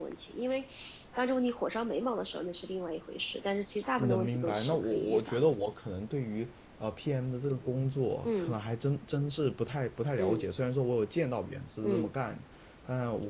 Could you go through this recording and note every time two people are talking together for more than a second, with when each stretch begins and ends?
4.0-5.5

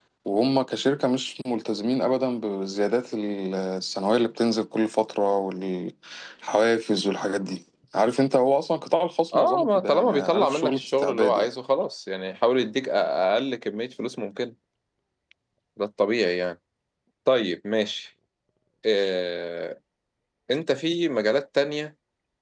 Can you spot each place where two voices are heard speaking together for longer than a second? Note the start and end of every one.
9.3-11.5

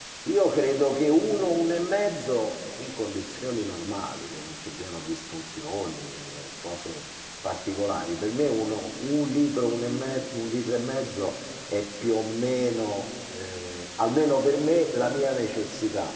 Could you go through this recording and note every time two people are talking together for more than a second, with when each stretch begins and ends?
none

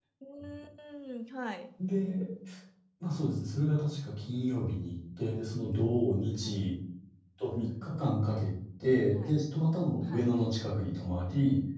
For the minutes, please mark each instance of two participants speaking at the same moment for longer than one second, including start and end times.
none

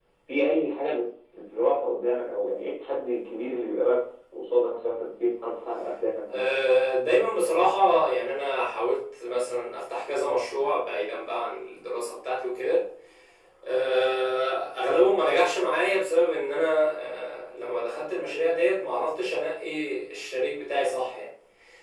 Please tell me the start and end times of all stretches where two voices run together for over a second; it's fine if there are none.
none

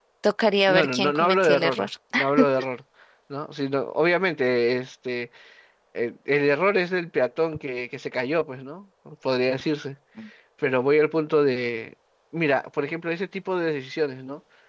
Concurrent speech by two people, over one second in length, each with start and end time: 0.7-1.9

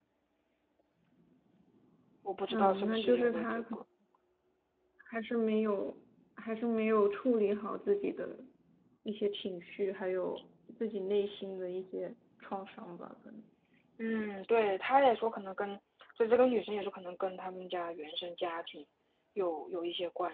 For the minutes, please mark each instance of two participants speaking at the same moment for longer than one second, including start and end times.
2.5-3.8

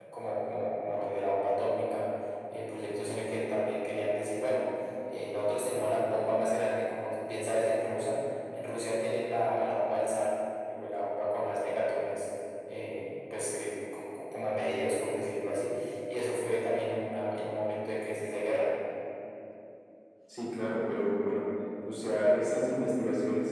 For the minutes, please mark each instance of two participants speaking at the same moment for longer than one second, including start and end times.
none

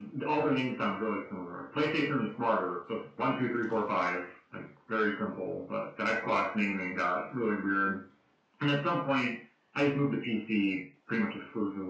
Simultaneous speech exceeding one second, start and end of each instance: none

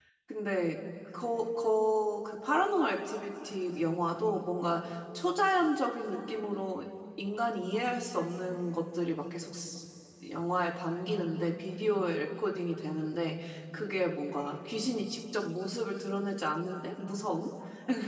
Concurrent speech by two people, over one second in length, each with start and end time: none

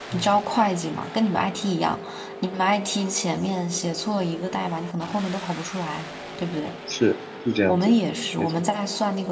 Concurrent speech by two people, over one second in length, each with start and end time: none

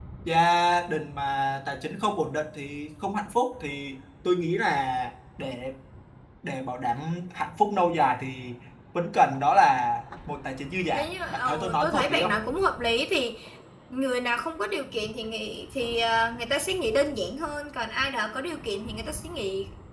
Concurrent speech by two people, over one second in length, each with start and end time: 11.0-12.3

